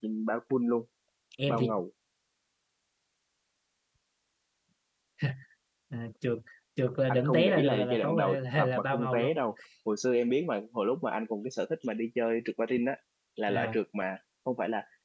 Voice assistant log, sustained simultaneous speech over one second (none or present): present